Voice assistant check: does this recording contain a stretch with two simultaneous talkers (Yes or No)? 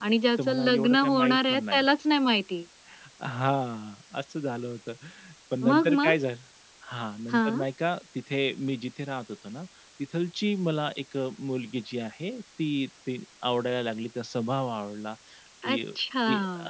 Yes